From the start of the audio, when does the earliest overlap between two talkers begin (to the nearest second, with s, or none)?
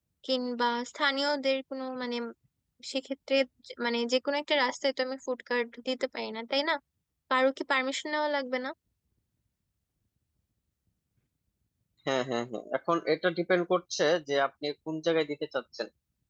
none